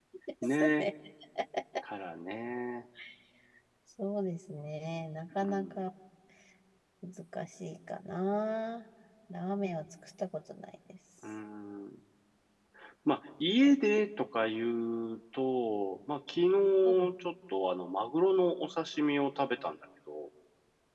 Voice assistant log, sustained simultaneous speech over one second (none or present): none